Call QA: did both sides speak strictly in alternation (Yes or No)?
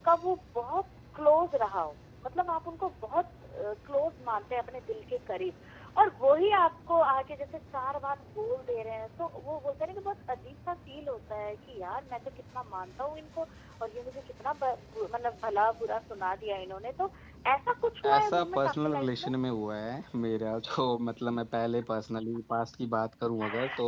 No